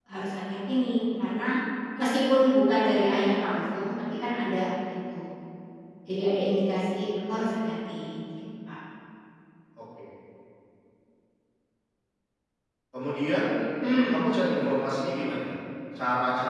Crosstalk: none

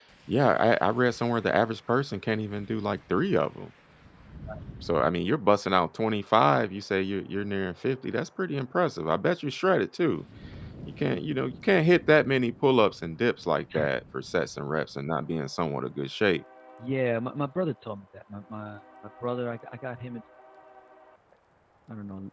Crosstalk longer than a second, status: none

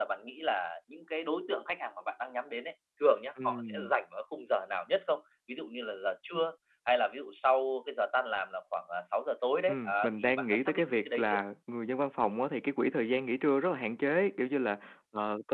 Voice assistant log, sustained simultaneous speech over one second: present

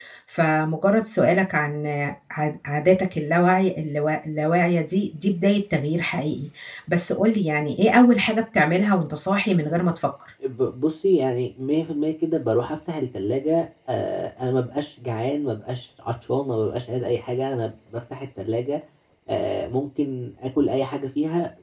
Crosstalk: none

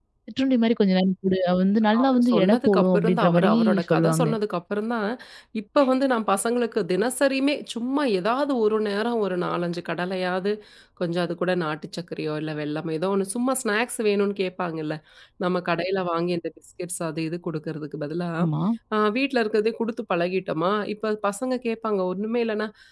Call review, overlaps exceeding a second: present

